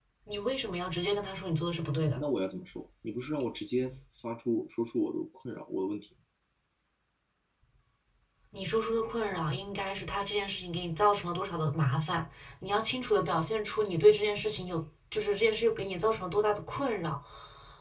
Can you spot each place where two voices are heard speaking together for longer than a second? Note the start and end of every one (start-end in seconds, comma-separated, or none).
none